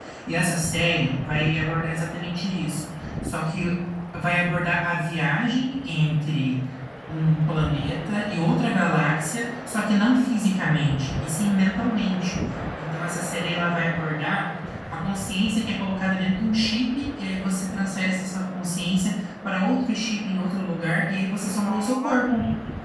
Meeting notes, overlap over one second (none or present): present